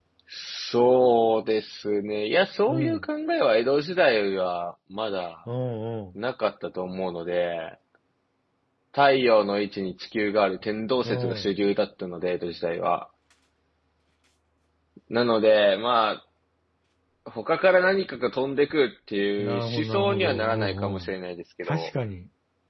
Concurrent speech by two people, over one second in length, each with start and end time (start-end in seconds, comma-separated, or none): 19.4-21.1